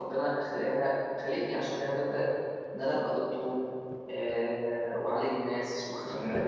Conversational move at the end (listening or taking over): listening